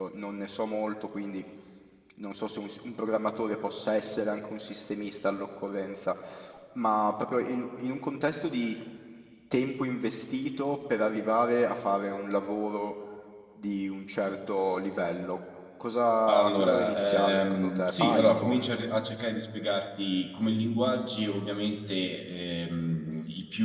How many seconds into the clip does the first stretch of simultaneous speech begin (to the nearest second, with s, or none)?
16 s